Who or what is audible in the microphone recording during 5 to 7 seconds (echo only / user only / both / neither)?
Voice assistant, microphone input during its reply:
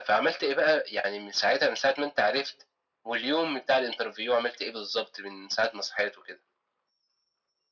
echo only